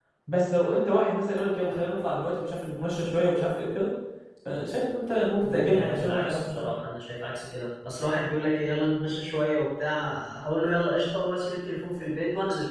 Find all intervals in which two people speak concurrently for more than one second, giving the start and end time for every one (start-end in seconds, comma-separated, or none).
5.4-6.7